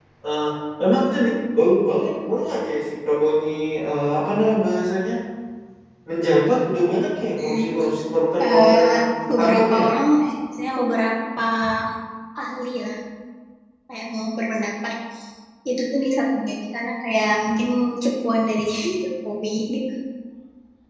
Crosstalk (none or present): present